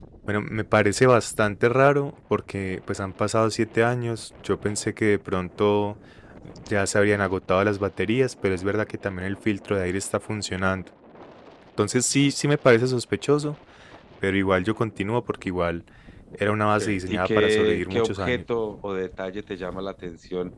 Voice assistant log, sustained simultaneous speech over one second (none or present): present